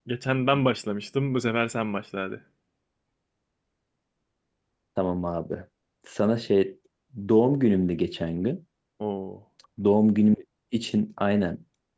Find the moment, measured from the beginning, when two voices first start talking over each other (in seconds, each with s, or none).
none